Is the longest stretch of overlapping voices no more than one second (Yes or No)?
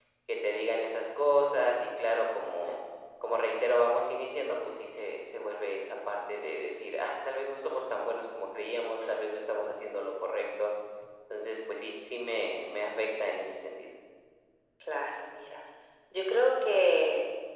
Yes